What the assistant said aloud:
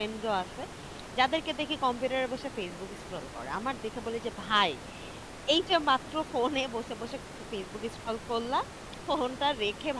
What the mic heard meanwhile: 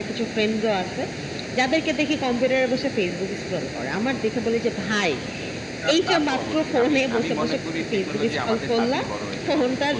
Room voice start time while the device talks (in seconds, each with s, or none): 5.8 s